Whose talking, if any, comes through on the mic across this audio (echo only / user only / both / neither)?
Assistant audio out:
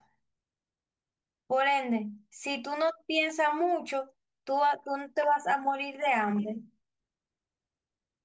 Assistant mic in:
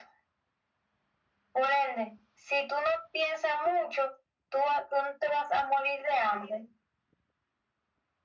echo only